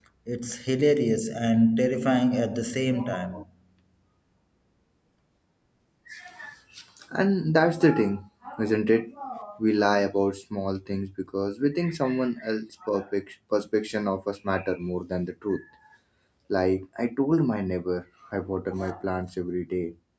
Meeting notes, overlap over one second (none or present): none